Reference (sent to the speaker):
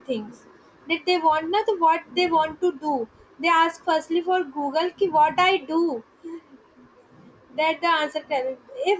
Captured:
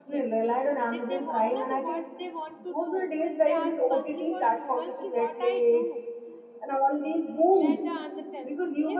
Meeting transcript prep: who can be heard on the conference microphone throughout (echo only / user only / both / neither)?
both